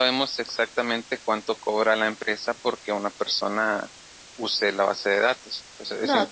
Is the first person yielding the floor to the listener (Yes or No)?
Yes